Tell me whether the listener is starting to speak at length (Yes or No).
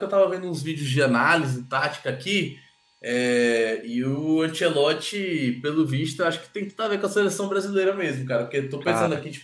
No